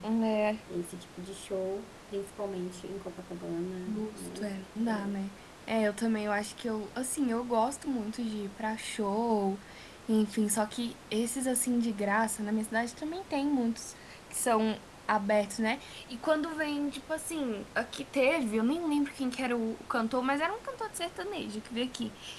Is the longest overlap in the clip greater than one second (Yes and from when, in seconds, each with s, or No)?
Yes, from 3.9 s